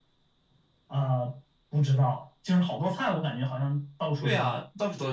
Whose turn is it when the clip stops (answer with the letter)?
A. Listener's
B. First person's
A